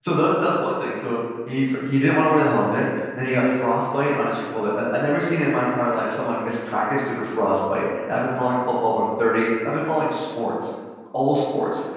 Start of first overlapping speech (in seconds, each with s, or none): none